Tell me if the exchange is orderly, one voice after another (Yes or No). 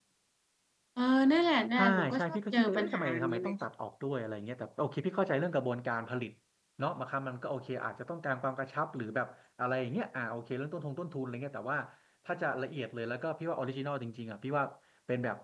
No